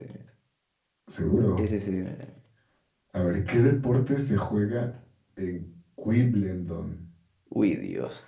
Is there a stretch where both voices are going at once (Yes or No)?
No